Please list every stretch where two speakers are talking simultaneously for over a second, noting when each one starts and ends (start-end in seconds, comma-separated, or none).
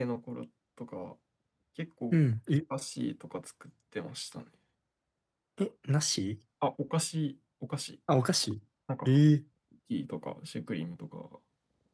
none